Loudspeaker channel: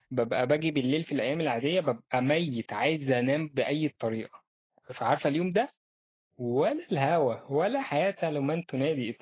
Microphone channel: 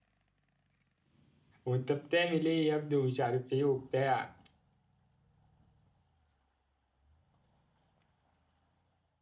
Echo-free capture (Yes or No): Yes